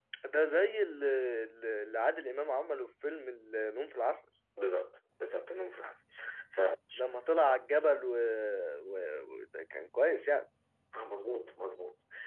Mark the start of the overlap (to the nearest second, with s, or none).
none